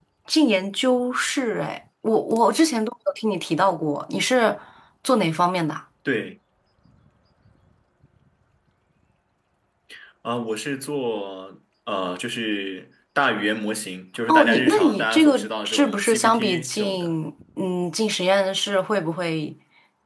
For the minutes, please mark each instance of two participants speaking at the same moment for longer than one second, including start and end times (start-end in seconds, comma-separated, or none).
14.3-17.1